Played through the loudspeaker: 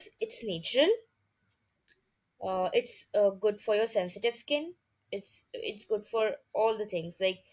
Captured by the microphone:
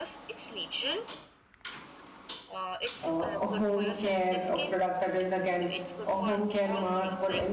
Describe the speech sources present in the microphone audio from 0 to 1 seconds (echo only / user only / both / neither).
echo only